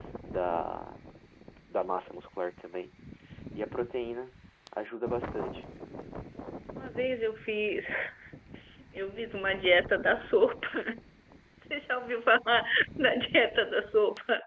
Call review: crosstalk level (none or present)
none